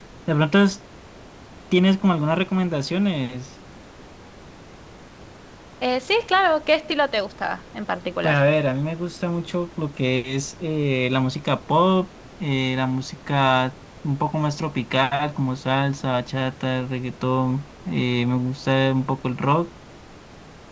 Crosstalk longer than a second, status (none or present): none